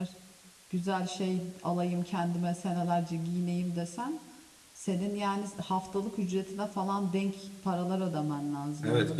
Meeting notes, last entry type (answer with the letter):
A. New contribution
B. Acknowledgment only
A